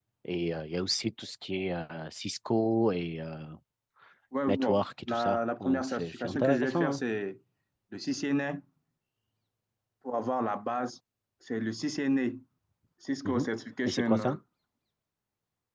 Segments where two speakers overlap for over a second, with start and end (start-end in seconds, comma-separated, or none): 4.5-7.0